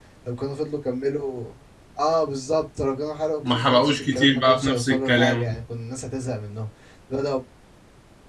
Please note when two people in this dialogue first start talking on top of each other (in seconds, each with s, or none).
3.4 s